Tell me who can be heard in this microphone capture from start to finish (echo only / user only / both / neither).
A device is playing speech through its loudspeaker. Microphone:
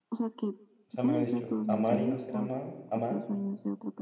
both